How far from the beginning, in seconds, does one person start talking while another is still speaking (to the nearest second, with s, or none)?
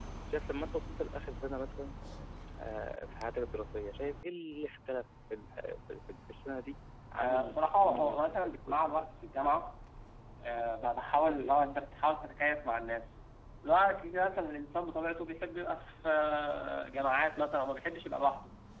7 s